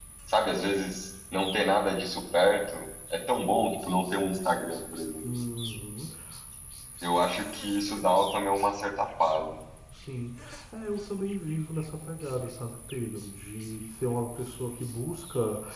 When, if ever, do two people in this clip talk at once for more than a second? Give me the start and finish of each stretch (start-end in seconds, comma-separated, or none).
none